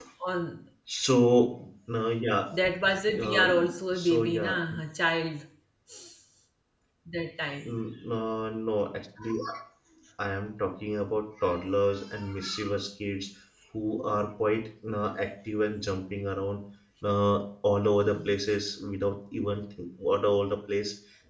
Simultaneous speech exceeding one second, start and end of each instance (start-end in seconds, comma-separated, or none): 3.2-4.5